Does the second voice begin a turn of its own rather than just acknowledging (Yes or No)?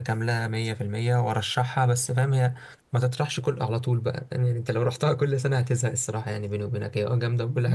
Yes